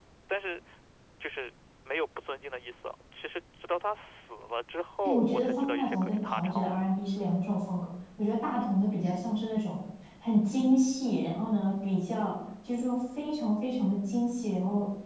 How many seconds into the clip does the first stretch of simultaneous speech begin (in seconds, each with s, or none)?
5.0 s